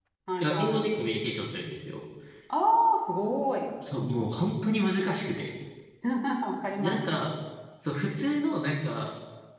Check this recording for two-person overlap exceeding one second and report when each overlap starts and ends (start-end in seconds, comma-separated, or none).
none